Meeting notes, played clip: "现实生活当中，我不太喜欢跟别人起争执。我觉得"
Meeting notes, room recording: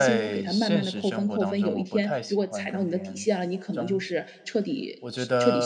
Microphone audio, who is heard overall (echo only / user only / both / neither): both